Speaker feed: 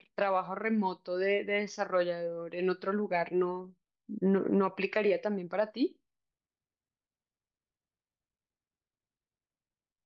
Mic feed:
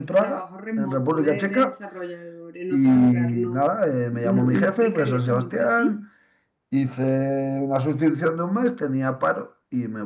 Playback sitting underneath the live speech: Yes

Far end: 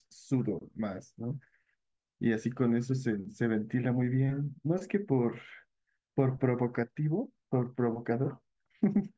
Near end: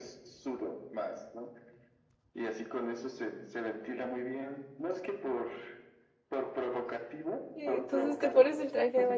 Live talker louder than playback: Yes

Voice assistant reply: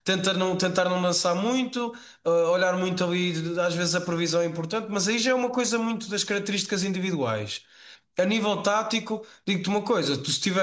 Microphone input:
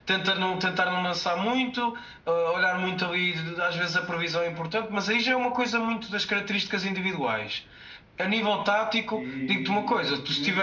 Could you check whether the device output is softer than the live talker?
No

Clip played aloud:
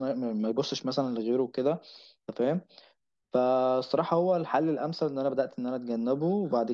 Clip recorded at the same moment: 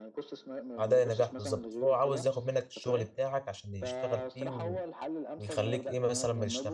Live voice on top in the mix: Yes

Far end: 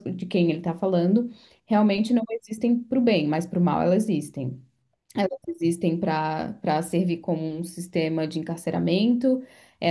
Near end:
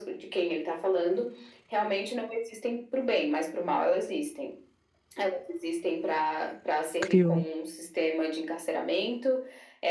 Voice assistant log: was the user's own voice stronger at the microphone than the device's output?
Yes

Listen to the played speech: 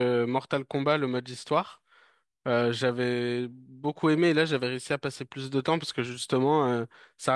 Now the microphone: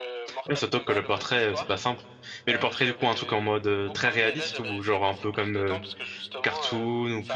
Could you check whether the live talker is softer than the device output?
No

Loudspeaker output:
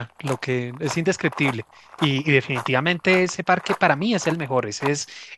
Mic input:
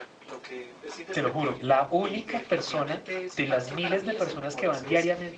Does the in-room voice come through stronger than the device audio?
Yes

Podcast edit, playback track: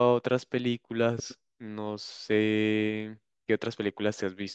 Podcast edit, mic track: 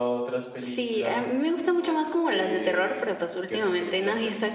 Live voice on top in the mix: Yes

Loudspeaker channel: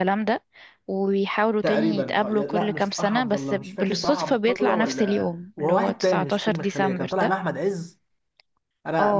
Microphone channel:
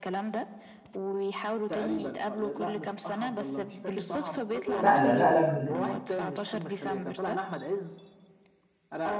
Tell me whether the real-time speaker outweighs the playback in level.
Yes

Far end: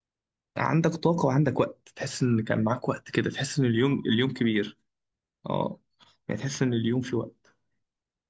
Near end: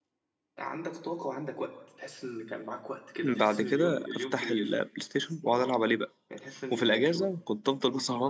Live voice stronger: Yes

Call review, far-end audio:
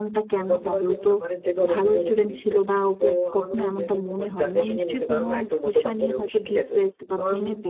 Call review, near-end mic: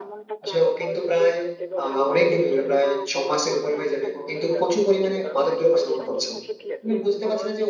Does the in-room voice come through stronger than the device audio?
Yes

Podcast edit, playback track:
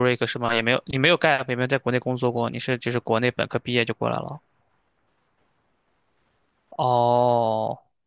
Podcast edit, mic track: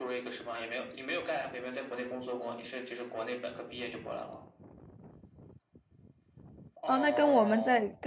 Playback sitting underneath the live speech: Yes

